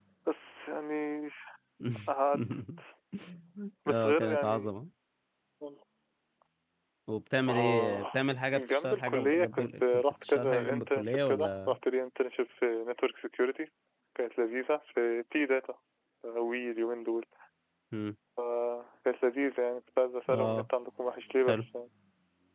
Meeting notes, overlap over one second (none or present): present